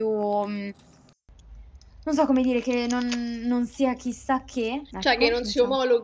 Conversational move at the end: taking over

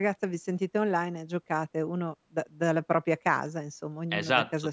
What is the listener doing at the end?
taking over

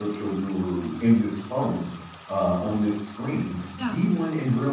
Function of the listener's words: listening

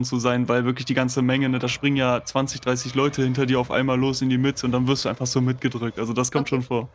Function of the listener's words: taking over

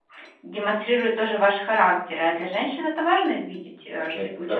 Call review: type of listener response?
taking over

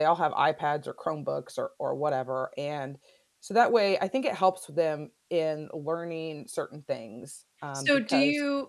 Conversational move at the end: taking over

